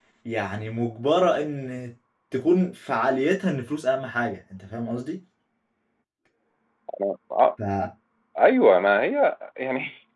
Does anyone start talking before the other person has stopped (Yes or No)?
No